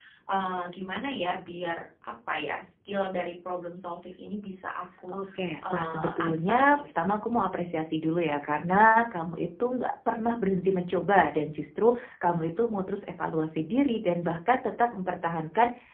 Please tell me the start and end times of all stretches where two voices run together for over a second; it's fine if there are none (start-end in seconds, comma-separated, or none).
5.7-7.1